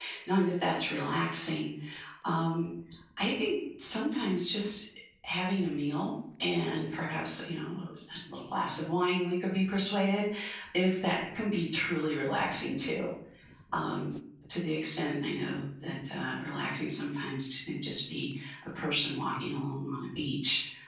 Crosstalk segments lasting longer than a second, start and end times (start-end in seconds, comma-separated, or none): none